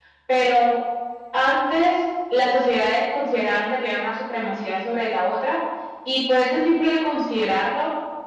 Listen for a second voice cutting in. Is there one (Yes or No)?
No